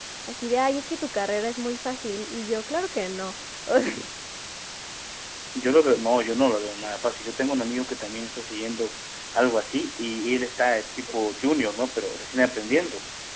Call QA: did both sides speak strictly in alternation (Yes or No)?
Yes